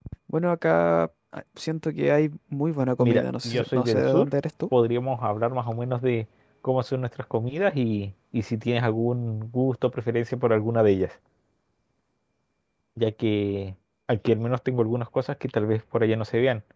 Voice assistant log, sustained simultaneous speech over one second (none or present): present